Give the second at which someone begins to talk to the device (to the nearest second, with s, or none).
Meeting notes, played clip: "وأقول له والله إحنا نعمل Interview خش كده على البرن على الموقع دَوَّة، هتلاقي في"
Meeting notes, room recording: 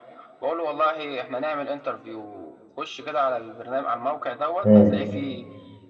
5 s